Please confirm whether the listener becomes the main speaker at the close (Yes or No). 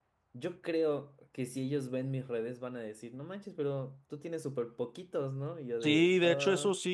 Yes